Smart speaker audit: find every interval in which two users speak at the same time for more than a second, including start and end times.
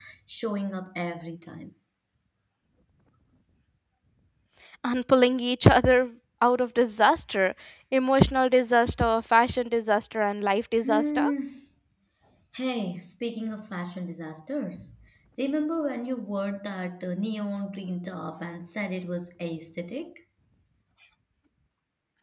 none

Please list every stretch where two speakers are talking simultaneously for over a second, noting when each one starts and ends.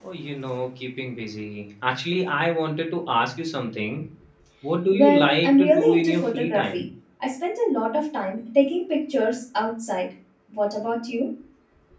4.9-6.8

